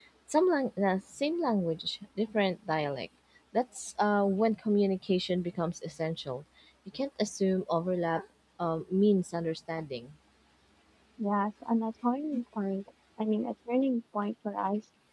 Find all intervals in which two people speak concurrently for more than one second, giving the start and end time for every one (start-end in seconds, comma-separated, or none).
none